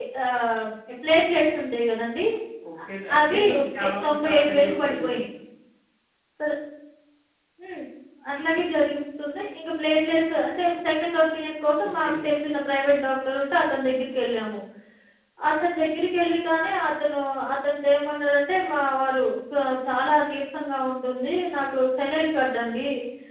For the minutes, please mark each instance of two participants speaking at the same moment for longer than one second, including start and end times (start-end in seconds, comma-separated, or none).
3.2-5.2